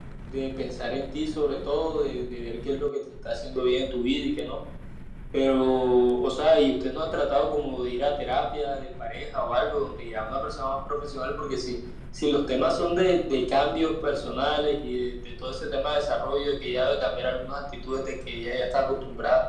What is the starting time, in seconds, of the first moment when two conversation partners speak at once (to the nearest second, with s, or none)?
none